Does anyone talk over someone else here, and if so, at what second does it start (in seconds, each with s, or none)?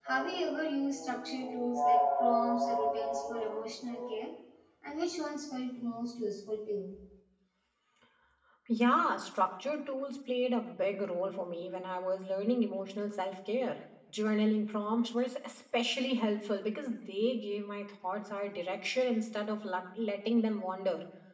none